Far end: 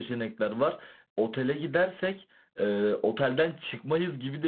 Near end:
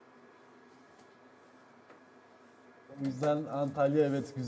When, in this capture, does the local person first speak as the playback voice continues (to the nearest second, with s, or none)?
3 s